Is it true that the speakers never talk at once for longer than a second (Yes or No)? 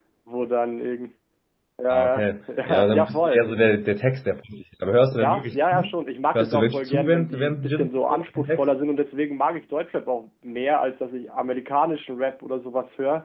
No